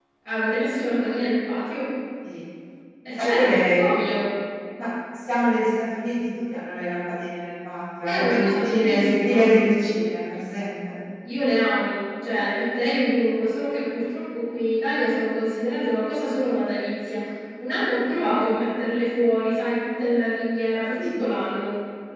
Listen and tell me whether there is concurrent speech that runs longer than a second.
Yes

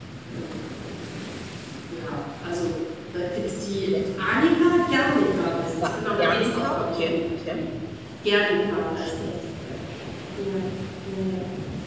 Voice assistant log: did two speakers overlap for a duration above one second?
Yes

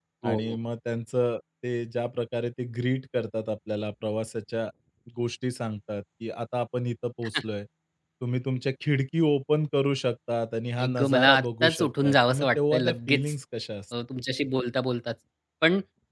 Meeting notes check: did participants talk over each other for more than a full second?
Yes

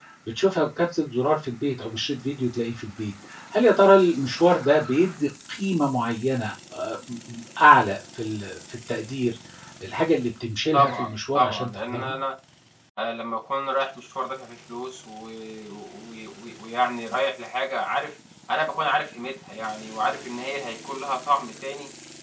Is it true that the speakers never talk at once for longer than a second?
No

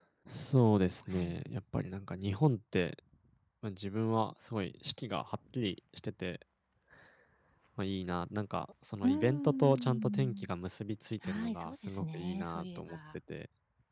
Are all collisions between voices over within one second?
No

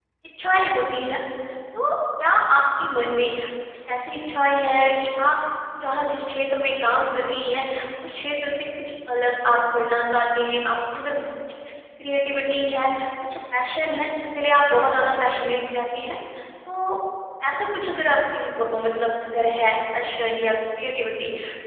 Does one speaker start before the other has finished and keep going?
No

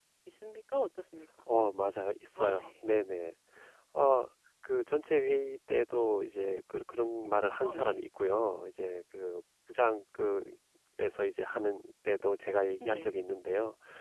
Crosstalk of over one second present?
No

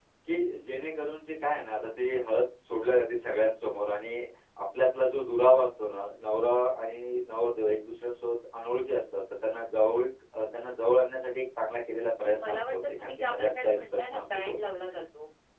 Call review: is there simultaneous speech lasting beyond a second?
Yes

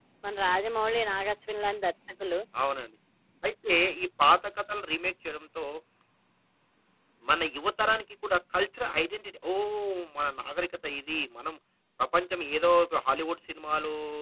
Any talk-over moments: No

